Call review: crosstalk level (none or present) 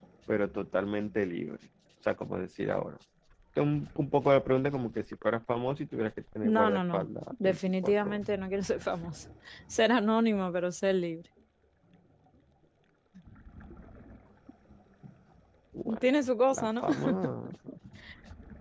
present